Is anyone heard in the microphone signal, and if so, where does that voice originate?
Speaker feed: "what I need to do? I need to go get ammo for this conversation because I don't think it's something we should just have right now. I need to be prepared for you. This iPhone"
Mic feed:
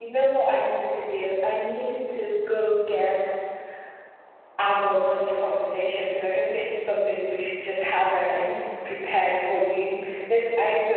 echo only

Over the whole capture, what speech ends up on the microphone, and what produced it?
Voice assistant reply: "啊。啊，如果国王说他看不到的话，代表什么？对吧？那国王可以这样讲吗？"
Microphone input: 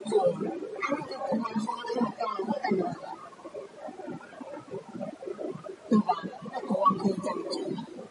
echo only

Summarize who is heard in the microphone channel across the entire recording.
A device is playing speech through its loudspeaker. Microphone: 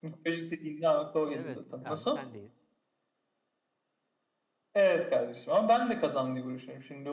both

